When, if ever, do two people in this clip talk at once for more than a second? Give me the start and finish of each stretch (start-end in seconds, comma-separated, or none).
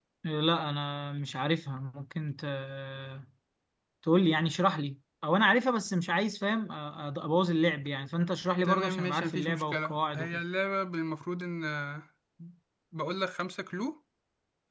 8.6-10.4